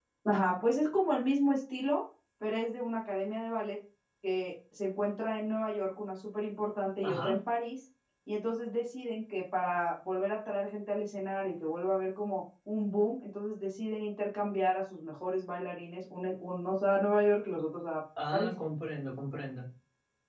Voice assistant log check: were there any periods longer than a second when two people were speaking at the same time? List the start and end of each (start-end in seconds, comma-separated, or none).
none